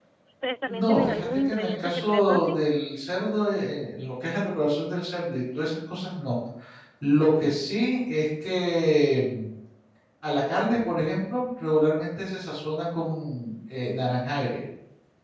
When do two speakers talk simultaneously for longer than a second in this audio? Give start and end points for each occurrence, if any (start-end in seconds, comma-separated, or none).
0.7-2.6